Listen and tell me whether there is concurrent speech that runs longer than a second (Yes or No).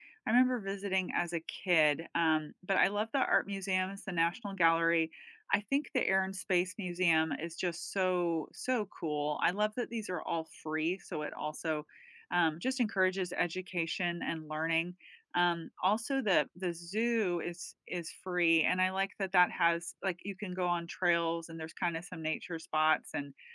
No